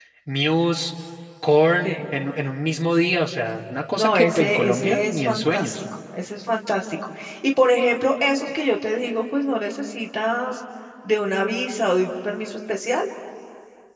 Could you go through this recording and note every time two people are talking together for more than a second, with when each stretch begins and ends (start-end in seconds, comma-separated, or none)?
4.0-5.8